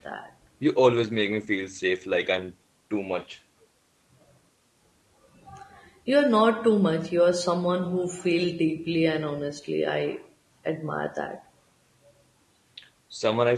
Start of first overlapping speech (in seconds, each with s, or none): none